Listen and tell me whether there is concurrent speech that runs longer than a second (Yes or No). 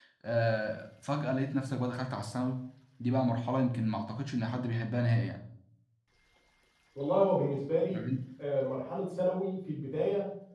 No